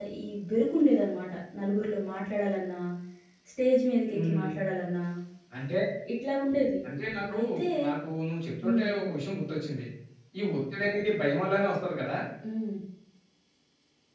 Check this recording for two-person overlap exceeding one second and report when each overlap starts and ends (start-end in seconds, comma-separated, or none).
none